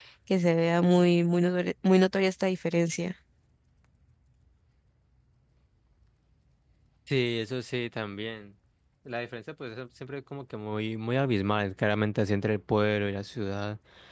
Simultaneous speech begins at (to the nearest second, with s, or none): none